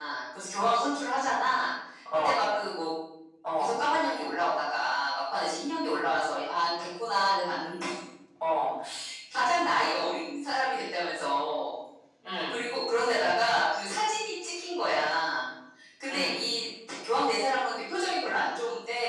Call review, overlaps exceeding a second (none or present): none